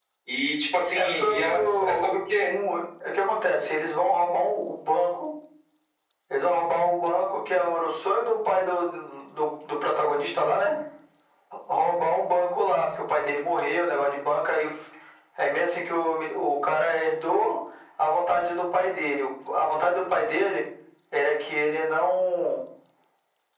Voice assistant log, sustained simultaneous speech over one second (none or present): present